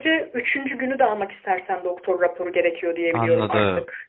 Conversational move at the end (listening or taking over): taking over